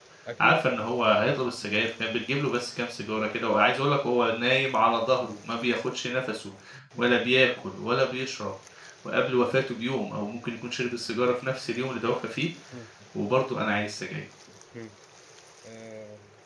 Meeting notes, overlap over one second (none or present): none